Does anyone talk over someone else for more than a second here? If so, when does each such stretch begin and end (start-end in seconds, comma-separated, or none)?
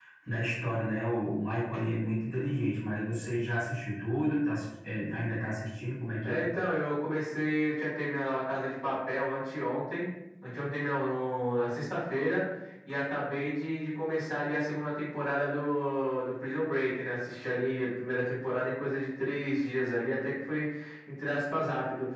none